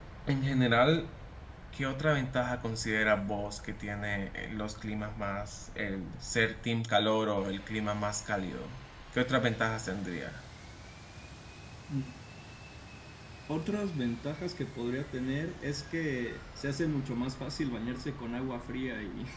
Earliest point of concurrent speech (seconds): none

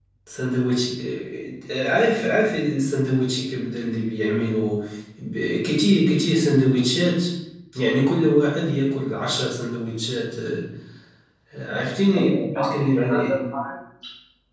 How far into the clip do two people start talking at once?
12.2 s

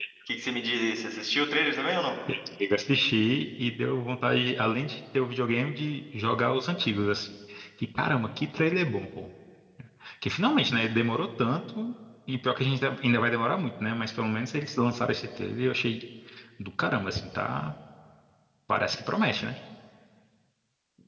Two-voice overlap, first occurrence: none

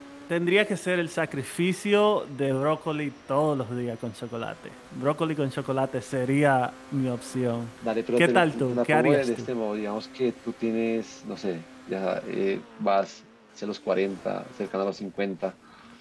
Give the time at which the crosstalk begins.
8.2 s

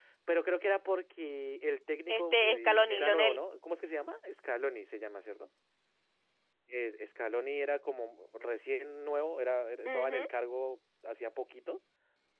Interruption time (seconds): 2.1 s

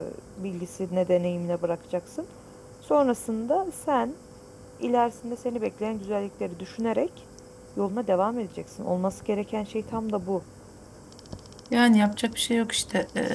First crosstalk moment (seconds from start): none

